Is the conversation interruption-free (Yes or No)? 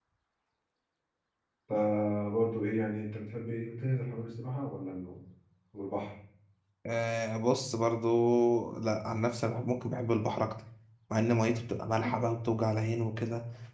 Yes